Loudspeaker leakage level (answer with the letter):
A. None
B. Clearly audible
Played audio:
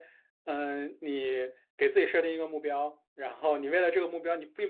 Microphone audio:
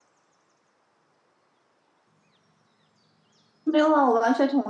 A